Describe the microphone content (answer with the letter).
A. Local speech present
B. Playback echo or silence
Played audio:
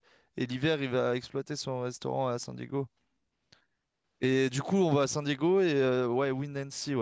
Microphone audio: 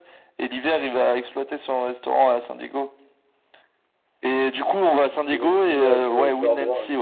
A